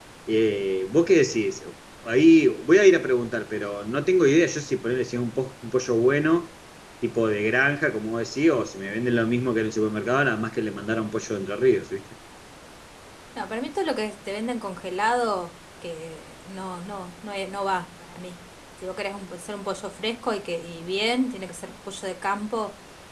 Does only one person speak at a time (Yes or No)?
Yes